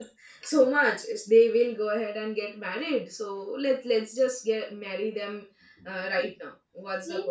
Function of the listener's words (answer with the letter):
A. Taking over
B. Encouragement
A